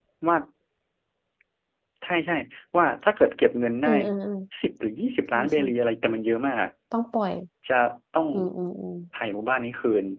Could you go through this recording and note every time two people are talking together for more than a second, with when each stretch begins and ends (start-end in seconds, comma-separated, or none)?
none